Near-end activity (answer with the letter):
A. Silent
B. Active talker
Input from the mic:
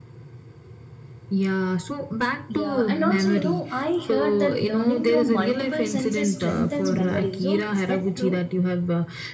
B